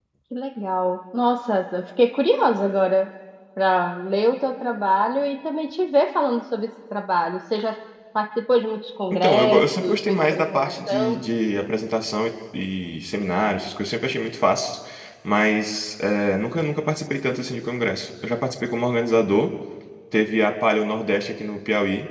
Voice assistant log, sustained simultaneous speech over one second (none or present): present